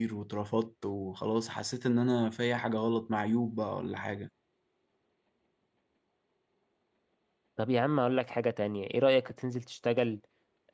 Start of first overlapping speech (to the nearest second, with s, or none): none